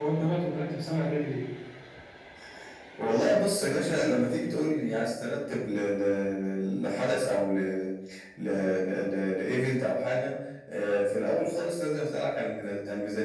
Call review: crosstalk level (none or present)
none